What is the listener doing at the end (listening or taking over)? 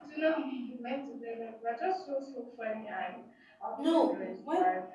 taking over